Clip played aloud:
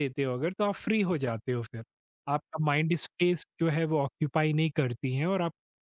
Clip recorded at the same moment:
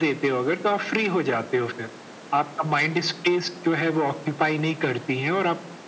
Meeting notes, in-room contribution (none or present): none